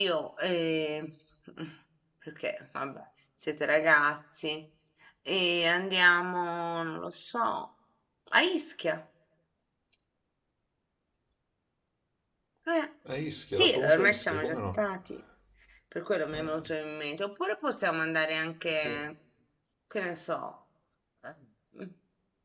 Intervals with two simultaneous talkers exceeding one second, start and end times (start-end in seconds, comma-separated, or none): 13.6-14.8